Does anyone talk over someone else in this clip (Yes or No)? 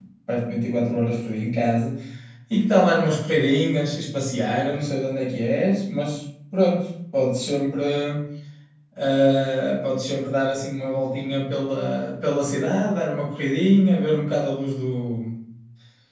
No